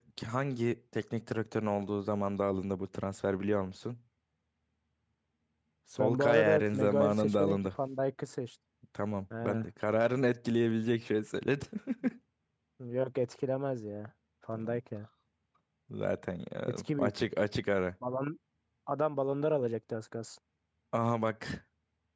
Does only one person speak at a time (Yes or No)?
No